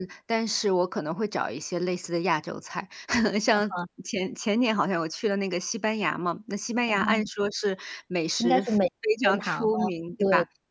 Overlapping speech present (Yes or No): Yes